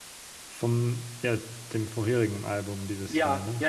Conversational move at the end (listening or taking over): taking over